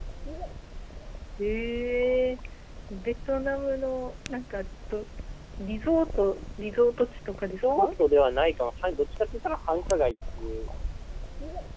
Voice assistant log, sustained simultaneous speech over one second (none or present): none